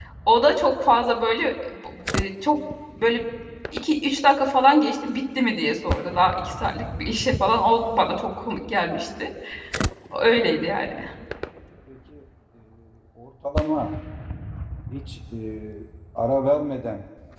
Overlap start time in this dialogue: none

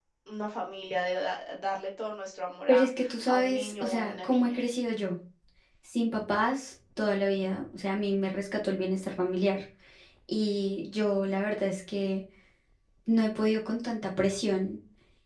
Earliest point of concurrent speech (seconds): 3 s

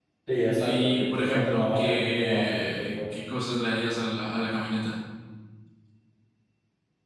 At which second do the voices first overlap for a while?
1 s

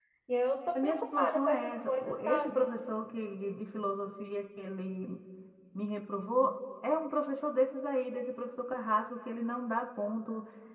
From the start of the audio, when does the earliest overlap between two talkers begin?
1 s

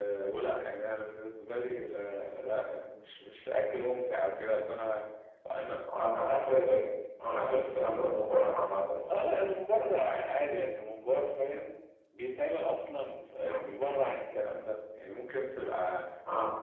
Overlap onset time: none

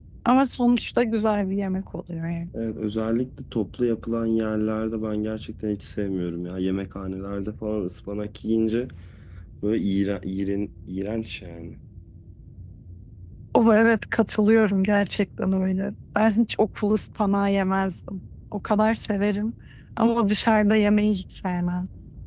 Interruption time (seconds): none

